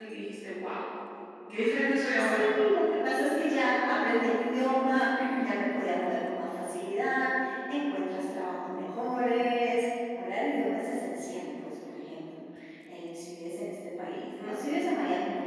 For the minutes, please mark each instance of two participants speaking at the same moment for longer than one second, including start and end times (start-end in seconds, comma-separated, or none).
none